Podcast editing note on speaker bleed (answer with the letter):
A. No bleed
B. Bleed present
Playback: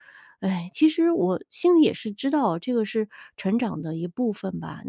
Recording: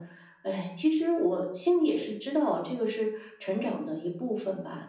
B